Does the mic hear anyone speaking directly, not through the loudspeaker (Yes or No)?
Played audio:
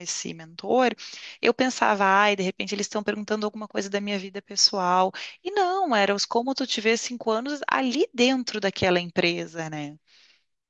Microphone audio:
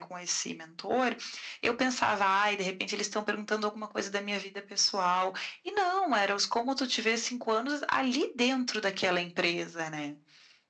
No